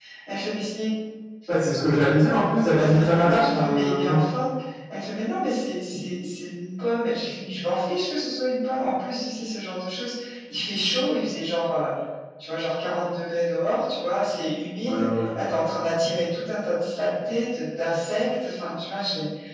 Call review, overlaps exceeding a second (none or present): present